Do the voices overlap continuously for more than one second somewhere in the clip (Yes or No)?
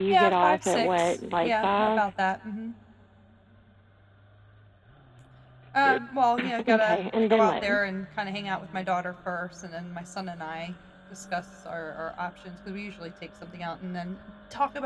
Yes